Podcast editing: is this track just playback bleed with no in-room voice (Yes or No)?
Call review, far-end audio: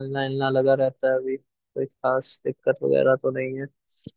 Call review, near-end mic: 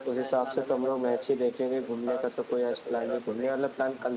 No